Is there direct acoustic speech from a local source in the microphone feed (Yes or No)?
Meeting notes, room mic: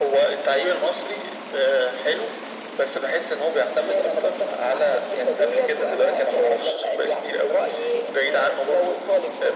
No